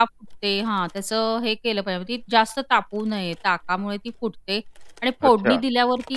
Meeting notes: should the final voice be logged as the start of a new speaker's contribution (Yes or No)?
No